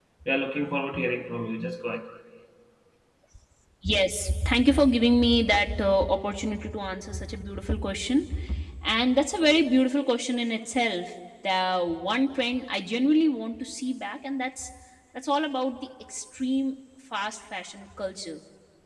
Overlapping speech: No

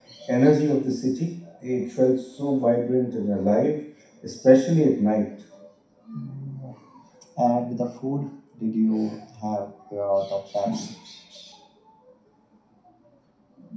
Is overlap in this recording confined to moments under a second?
Yes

